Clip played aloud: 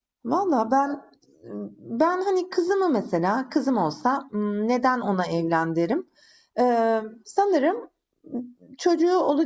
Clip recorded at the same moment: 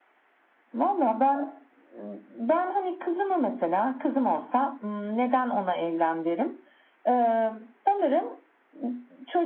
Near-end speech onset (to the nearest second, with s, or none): none